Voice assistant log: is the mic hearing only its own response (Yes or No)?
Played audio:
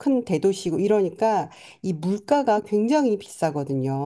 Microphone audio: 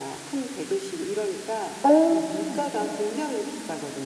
No